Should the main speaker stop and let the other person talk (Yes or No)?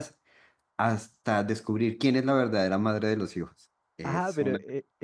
Yes